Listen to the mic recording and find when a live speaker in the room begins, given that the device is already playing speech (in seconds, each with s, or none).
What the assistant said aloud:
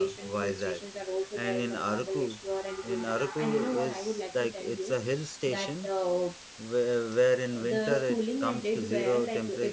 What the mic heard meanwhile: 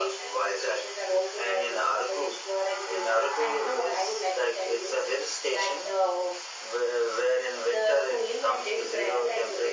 none